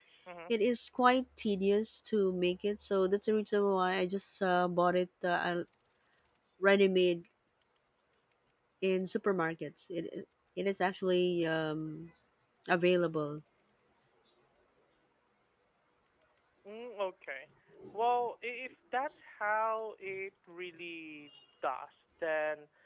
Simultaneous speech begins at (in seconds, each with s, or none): none